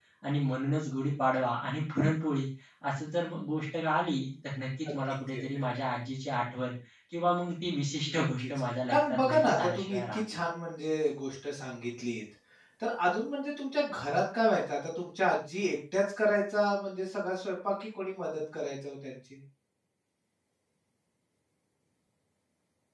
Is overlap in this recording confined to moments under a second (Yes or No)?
No